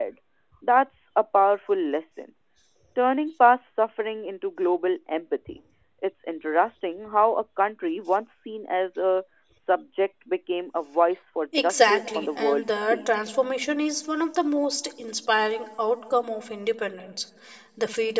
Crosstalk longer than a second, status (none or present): present